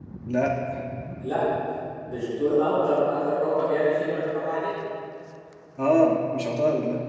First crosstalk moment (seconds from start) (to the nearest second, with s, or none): none